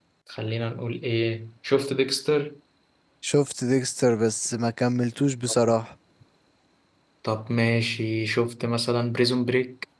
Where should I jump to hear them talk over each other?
none

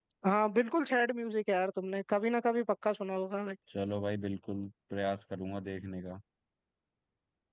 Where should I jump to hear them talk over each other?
none

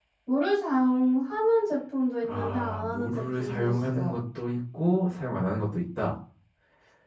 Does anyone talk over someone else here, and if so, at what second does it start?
2 s

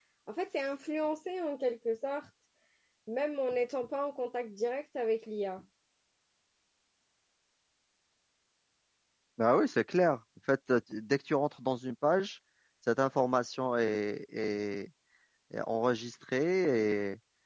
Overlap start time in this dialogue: none

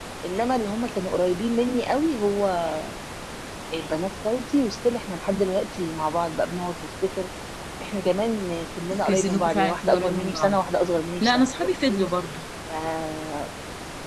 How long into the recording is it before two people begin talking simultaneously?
9 s

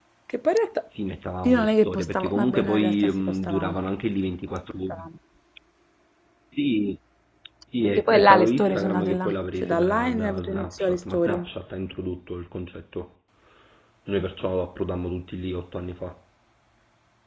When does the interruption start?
1 s

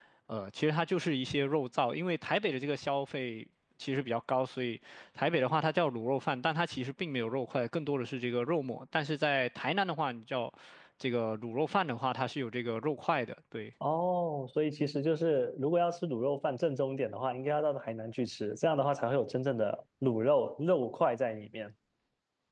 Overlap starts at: none

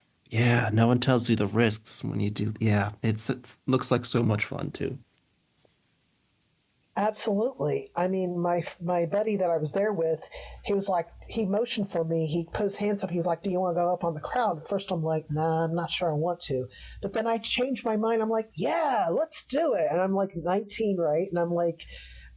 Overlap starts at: none

